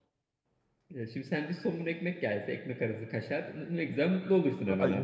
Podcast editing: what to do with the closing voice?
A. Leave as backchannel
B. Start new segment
B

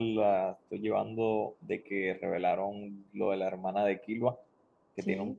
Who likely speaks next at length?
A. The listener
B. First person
B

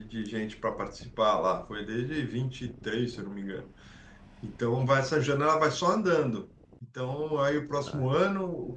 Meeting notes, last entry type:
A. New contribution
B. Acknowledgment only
B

